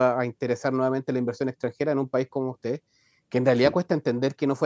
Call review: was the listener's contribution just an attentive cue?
Yes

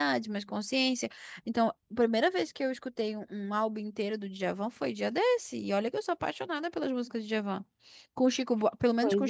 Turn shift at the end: No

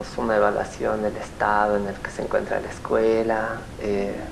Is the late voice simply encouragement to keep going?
Yes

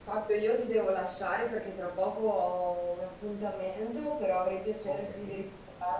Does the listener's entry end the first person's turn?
No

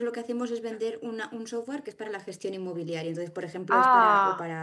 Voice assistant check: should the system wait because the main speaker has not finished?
Yes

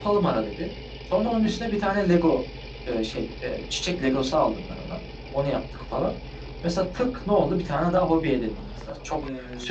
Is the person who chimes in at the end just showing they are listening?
Yes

